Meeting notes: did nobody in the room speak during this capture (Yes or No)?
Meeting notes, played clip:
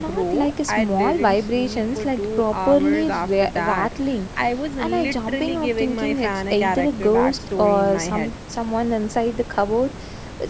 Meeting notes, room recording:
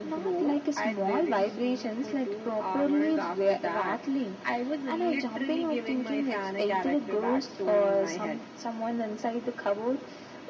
Yes